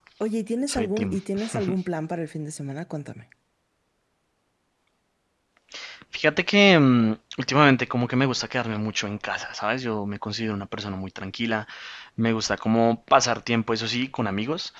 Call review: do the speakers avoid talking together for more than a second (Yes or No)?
Yes